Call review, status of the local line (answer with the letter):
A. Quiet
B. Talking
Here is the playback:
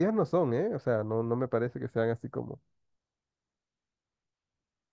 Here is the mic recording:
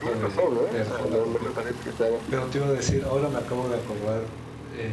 B